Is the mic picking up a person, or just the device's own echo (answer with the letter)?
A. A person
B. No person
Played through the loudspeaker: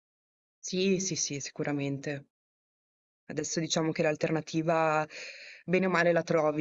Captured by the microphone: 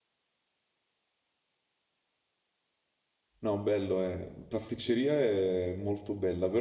A